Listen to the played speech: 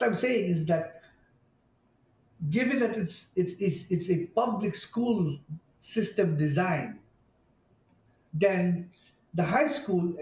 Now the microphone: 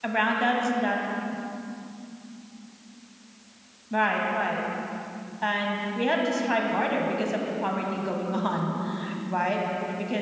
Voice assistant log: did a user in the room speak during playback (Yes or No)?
Yes